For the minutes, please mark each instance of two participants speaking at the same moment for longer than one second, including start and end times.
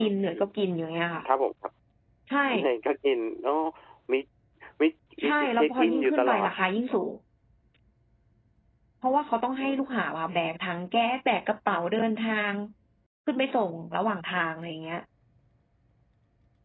5.2-6.5

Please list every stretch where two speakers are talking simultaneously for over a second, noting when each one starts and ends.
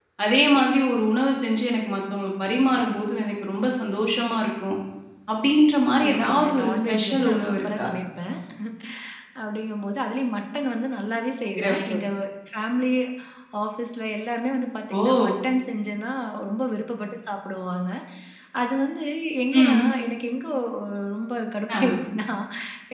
6.1-7.9

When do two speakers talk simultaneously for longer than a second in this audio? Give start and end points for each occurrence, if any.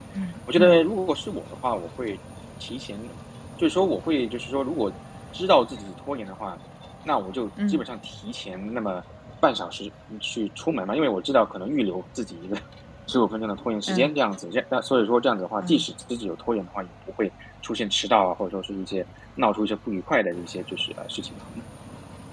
none

